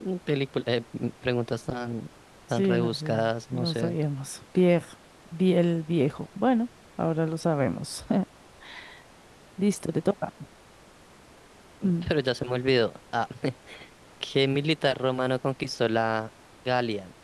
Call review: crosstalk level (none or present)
present